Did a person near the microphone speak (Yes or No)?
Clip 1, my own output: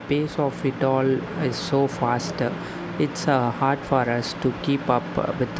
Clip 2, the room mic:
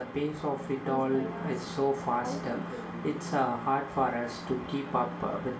Yes